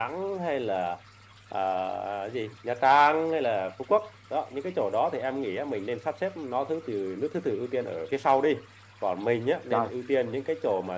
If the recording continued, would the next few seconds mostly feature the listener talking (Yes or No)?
No